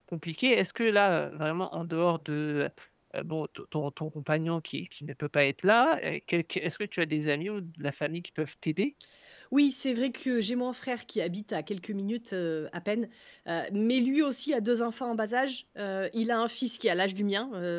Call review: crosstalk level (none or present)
none